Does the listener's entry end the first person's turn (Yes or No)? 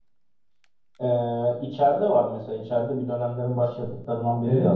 Yes